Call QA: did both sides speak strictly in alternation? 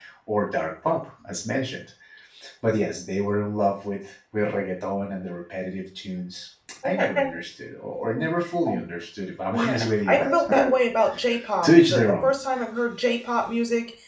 No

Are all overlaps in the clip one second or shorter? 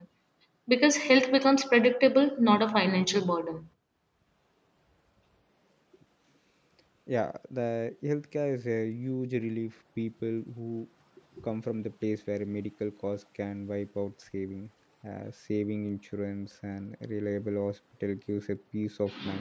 Yes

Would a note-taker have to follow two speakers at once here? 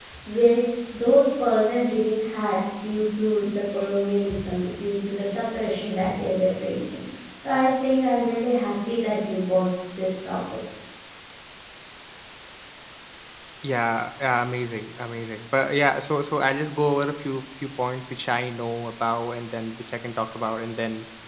No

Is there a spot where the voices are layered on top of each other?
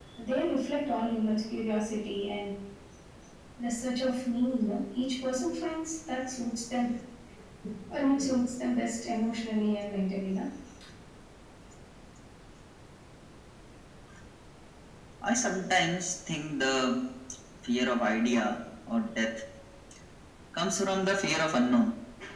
No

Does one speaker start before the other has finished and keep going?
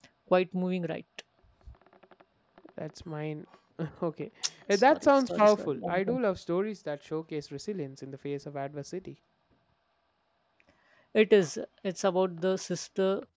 Yes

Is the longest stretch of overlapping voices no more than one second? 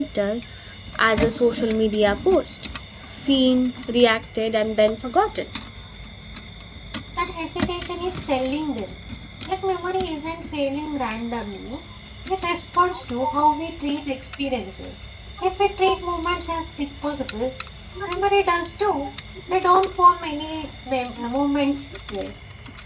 Yes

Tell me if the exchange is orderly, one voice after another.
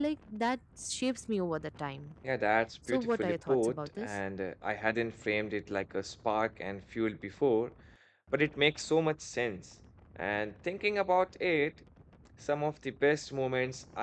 No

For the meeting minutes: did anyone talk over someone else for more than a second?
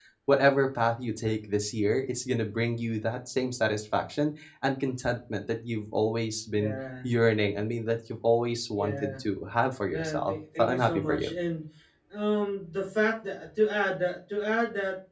Yes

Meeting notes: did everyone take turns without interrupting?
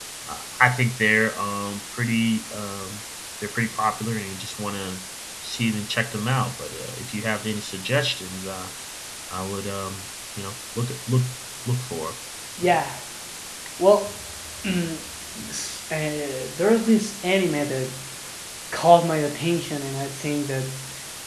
Yes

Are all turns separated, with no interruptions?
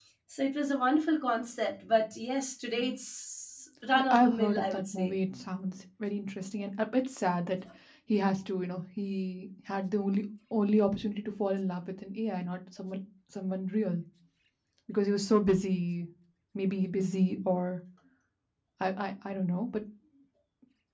No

